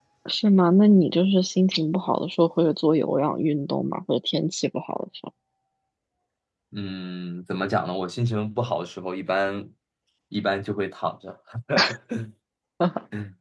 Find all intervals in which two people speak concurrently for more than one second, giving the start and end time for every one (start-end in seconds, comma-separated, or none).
none